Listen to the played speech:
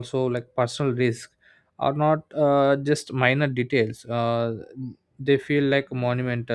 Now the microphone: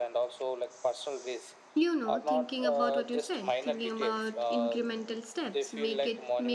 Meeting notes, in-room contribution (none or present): present